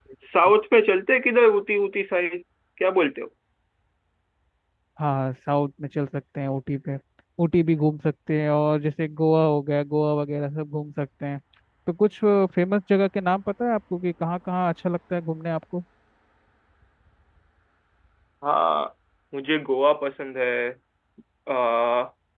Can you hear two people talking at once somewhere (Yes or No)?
No